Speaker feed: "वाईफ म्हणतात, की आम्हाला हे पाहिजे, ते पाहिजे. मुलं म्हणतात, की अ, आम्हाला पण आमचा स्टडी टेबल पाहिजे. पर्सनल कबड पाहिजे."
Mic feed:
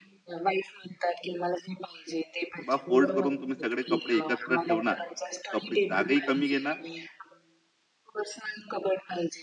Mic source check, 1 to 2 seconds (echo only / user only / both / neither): echo only